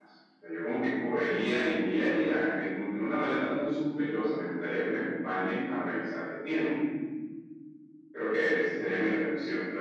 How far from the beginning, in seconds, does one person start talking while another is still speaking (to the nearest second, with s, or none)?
none